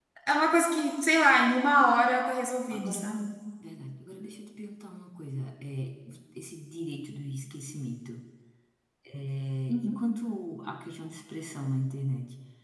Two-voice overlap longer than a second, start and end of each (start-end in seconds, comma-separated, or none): none